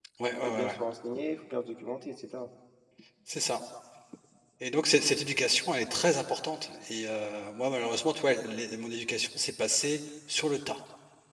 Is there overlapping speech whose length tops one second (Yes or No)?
No